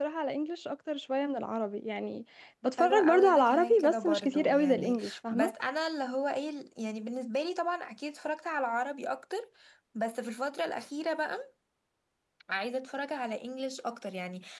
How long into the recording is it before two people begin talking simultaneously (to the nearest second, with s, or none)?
3 s